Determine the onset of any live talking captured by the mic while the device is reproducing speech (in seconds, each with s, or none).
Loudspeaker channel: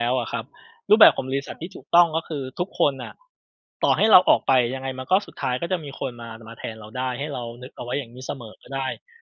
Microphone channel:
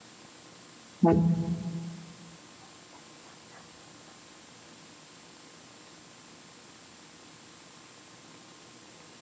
1.0 s